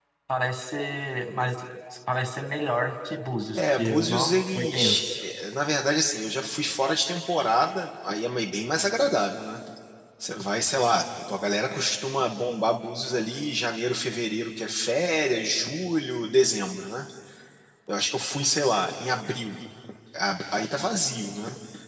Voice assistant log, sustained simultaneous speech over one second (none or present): present